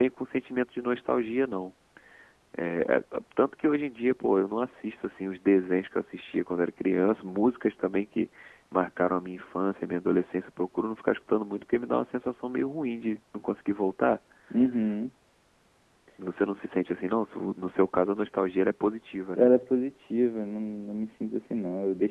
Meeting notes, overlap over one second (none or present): none